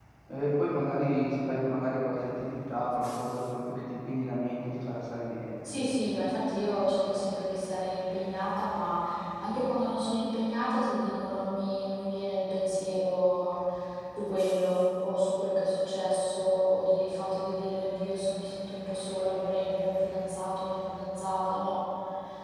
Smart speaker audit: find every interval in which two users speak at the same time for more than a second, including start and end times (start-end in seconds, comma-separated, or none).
none